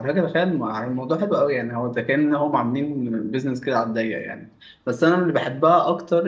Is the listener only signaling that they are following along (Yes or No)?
Yes